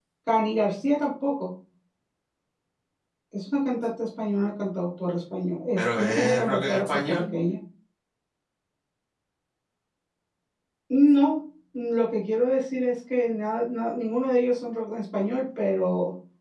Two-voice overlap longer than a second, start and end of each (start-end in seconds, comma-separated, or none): 5.8-7.3